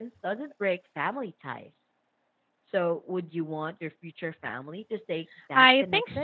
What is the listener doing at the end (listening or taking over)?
taking over